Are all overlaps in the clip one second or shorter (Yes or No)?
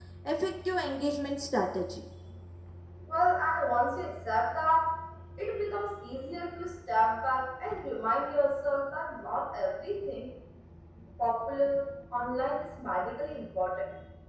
Yes